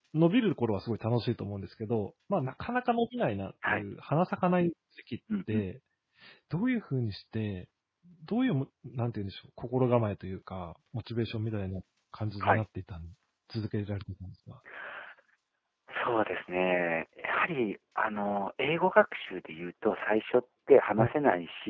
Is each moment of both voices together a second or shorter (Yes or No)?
Yes